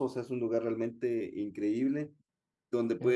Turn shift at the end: No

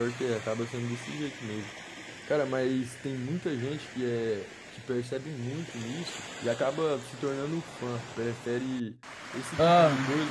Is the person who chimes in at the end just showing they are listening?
Yes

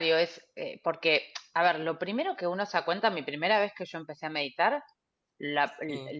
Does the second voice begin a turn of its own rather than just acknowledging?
No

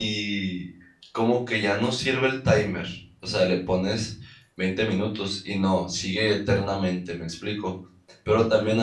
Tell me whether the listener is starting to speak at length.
No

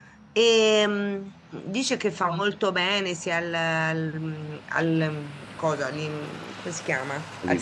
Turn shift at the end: No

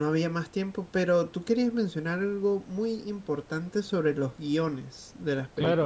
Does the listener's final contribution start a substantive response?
Yes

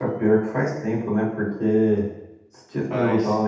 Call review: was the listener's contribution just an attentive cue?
Yes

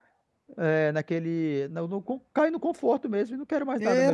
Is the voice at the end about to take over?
Yes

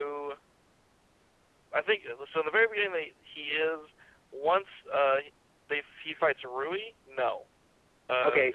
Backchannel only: No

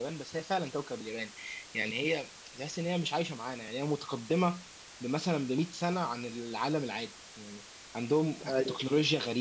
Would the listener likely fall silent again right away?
Yes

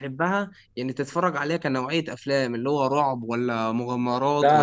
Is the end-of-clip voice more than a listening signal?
Yes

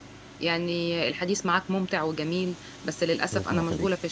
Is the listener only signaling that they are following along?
Yes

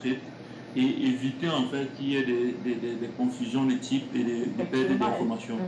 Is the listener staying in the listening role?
No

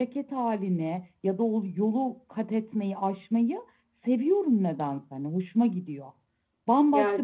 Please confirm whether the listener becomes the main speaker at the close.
No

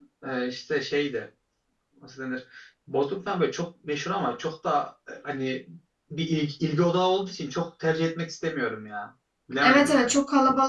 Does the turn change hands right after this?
Yes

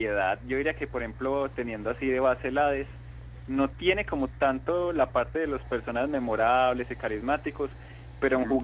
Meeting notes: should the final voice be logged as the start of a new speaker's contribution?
No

